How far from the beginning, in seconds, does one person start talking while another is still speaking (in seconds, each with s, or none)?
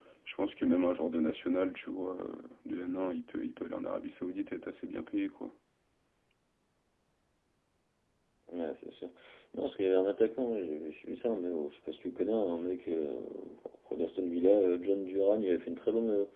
none